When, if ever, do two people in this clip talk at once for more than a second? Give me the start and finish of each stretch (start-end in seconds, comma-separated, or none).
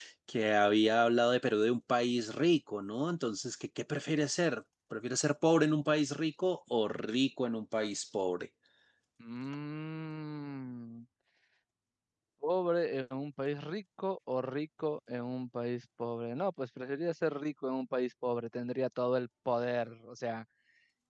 none